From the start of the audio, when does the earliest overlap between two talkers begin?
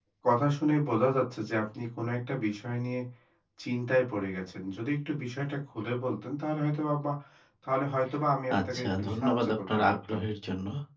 8.5 s

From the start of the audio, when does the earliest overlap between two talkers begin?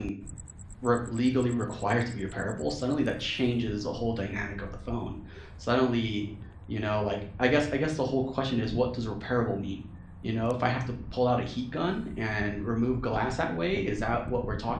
none

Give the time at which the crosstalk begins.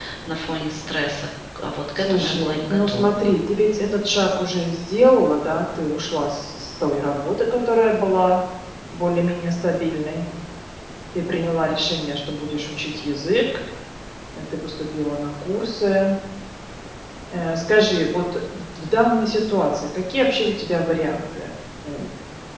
2.0 s

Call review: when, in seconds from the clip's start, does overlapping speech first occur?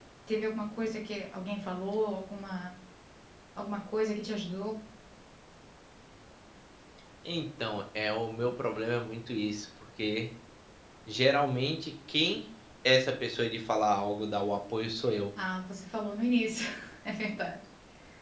none

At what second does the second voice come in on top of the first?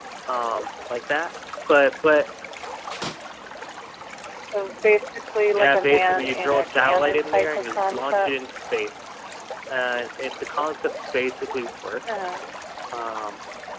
5.6 s

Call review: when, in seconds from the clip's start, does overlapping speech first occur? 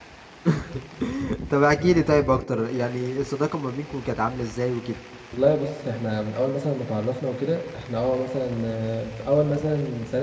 none

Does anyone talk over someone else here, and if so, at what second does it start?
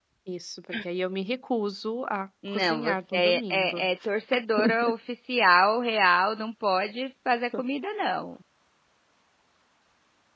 2.5 s

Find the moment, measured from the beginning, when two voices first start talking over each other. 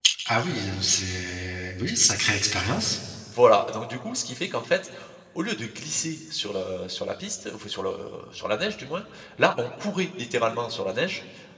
none

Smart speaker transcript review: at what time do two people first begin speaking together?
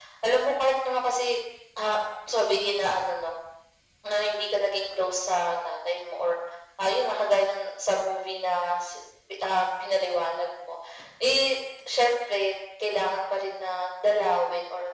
none

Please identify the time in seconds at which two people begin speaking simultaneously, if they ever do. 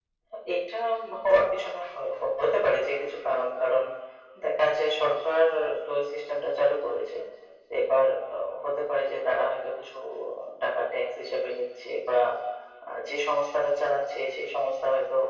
none

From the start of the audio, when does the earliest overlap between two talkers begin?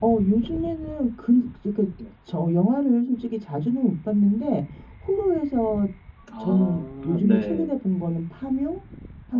6.4 s

